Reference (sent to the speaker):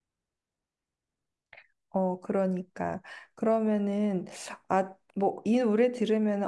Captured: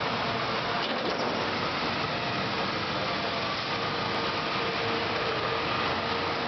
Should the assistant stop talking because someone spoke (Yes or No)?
No